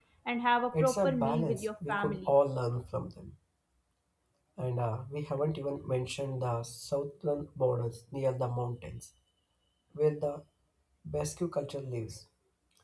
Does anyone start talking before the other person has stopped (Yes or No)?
Yes